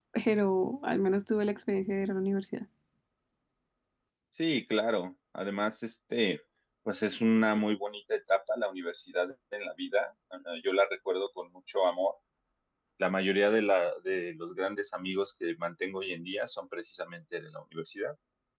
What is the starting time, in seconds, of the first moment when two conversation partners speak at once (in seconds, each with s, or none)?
none